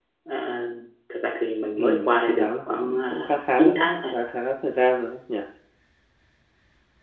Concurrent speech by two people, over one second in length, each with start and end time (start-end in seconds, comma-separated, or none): 1.8-3.9